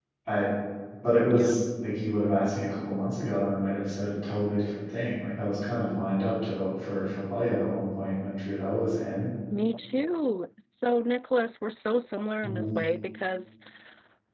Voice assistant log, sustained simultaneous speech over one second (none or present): none